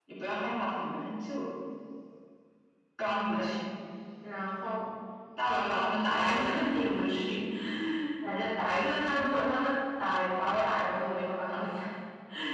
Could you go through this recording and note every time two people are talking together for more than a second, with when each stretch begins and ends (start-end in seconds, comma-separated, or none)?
none